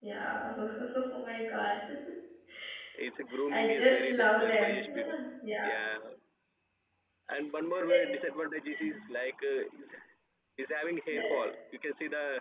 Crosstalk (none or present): present